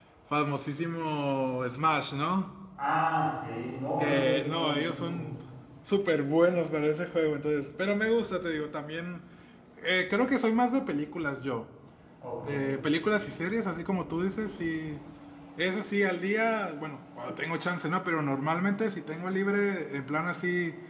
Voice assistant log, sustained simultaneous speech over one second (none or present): present